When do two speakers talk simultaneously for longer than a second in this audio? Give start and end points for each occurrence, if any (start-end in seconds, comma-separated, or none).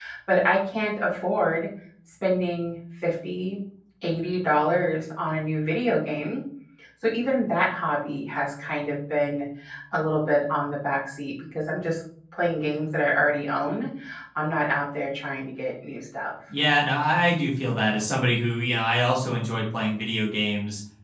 none